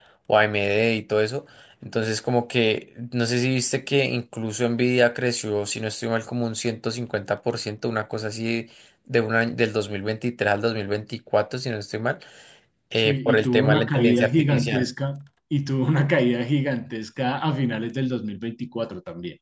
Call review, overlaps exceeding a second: present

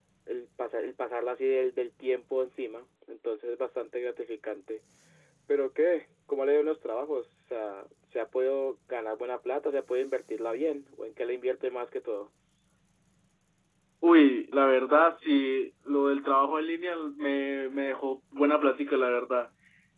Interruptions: none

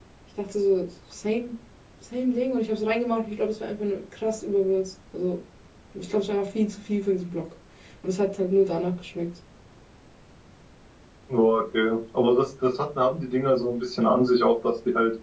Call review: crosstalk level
none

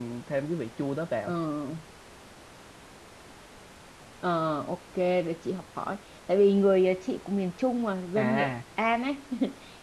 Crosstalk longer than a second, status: none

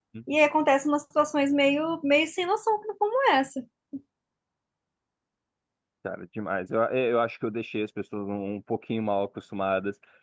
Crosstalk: none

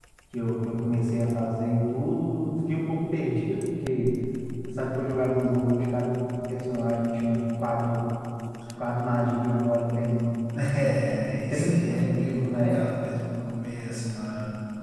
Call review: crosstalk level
present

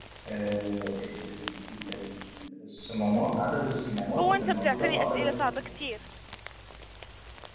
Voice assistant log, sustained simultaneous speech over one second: present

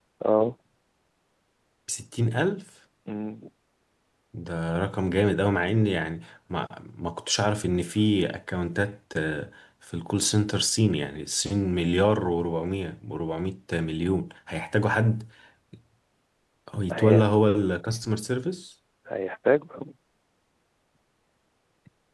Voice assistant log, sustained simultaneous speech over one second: none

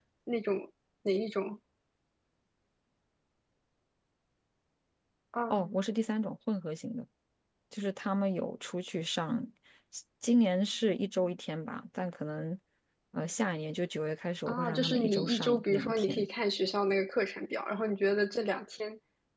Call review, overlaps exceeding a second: present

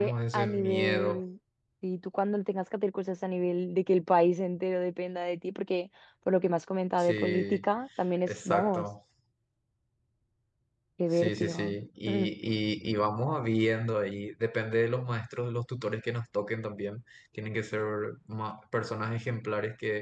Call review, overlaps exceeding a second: present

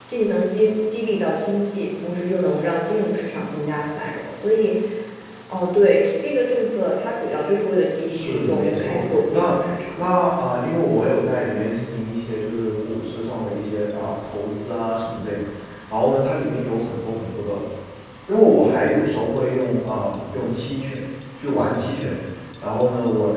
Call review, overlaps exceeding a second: present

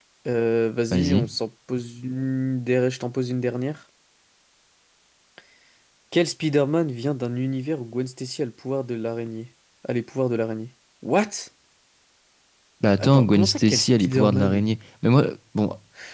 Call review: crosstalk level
present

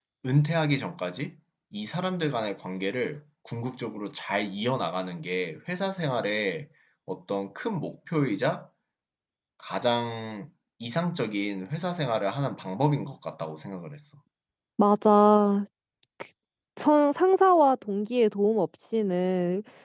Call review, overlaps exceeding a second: none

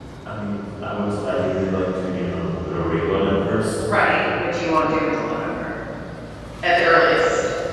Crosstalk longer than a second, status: none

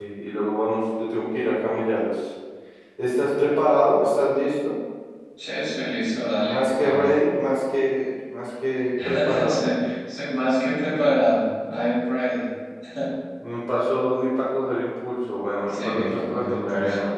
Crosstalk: present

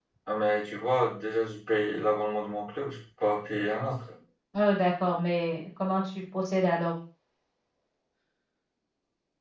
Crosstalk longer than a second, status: none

